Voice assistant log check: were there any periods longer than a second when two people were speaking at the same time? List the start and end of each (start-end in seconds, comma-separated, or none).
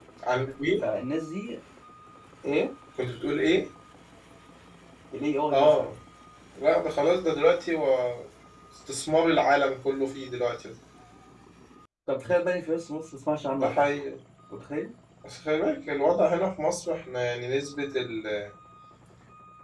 none